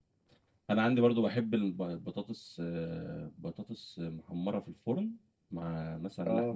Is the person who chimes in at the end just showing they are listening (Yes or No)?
Yes